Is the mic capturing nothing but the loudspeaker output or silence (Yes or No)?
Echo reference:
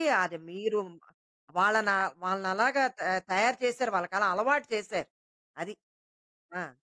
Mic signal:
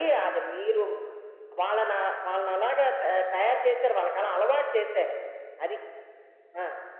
Yes